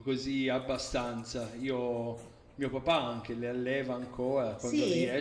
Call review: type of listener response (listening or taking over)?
listening